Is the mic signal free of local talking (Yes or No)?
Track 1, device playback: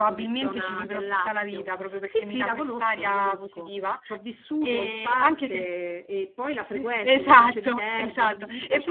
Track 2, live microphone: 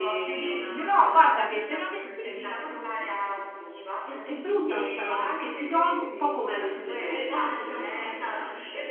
No